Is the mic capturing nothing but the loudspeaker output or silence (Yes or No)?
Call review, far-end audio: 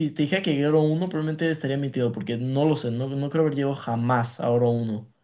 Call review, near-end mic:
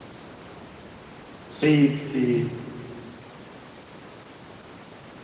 No